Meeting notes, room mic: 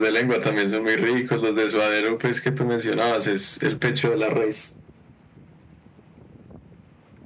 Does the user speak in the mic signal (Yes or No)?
No